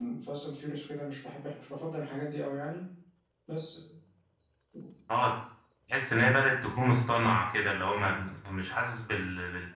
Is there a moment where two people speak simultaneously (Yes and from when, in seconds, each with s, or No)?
No